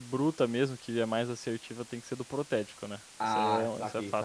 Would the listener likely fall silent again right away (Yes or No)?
No